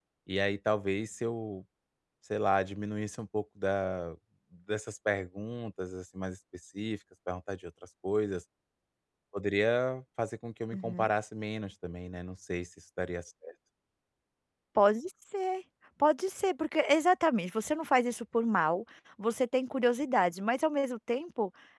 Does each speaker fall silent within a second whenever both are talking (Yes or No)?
Yes